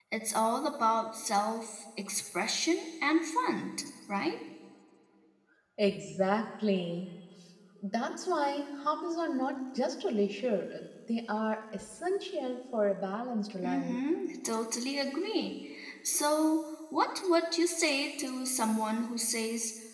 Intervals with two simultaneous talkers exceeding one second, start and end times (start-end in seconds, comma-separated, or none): none